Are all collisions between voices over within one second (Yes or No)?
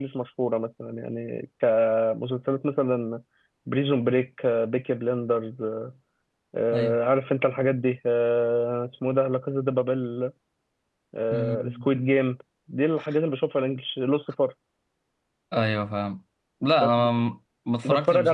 Yes